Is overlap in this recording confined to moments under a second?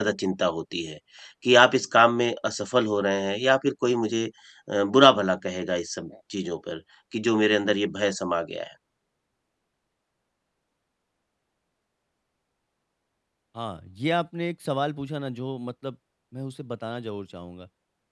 Yes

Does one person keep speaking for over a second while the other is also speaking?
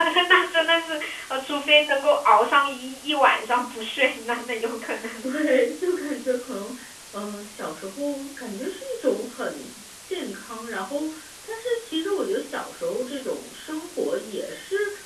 No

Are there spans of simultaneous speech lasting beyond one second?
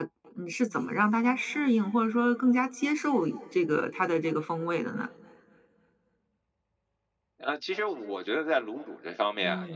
No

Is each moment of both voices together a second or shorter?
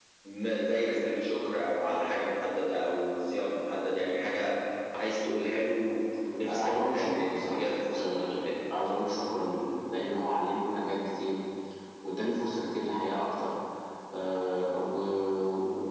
No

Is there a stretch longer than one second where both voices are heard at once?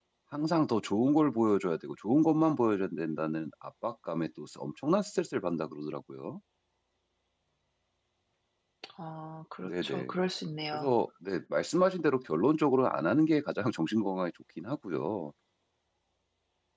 No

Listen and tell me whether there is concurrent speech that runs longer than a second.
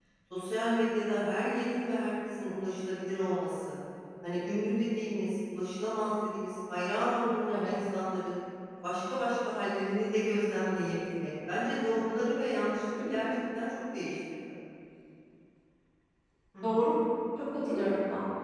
No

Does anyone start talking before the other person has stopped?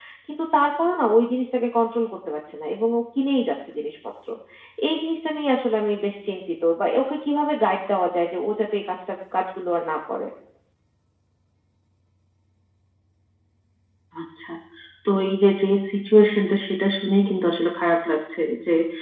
No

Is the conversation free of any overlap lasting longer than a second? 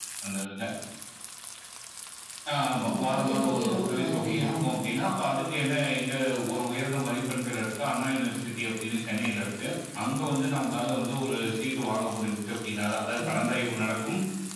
No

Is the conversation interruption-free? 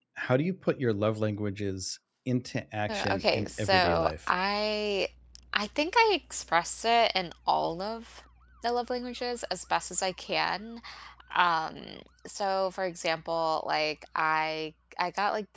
No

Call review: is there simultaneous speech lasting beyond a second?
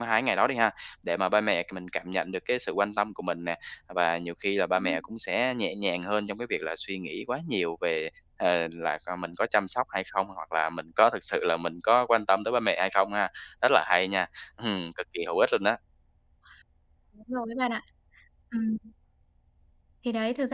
No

